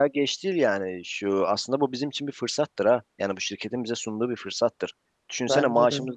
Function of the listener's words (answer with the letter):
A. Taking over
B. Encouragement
B